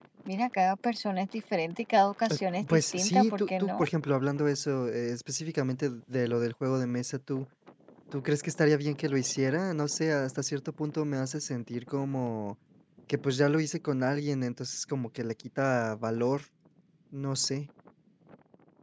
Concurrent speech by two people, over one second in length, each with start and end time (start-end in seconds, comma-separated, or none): 2.3-3.8